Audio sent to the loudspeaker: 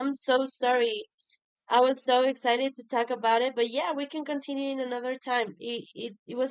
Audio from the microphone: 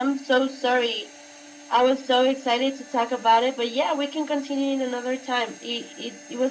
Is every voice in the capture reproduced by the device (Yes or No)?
Yes